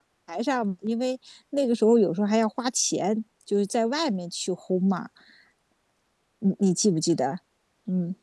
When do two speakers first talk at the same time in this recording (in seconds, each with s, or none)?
none